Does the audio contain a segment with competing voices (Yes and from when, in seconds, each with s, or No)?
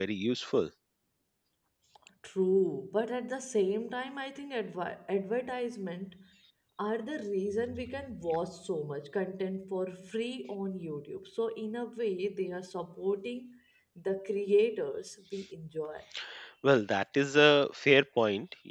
No